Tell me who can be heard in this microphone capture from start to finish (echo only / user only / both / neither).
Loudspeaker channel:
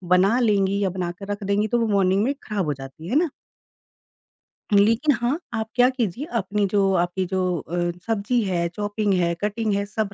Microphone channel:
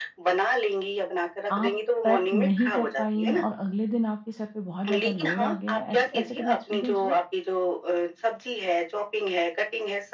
both